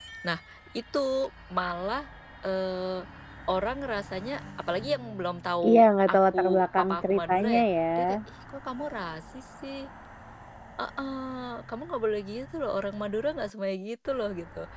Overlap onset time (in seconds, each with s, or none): 5.6 s